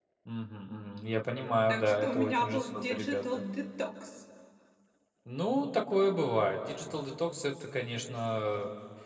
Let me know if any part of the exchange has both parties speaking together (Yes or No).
Yes